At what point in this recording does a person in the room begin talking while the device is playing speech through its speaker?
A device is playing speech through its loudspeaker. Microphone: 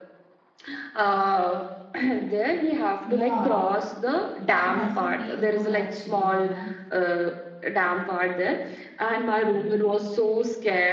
3.0 s

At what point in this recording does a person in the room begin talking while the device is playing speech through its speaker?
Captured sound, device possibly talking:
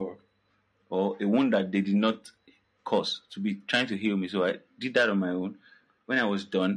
none

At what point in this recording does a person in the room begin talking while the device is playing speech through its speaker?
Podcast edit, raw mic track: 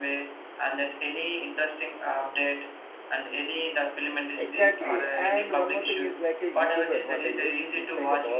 4.4 s

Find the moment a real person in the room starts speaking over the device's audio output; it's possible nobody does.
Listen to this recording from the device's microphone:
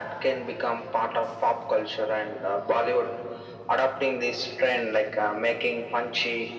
none

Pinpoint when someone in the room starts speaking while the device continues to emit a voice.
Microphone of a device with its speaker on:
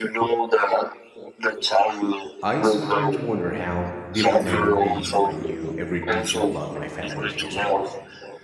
2.4 s

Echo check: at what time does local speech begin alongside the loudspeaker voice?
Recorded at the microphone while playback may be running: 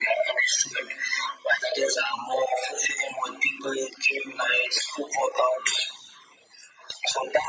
none

